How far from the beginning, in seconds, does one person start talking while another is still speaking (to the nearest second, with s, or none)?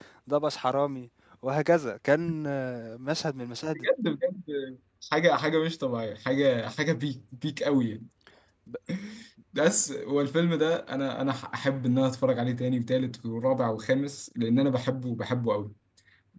none